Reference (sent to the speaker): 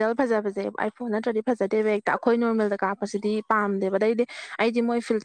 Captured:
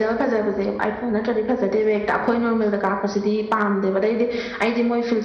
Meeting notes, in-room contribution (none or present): none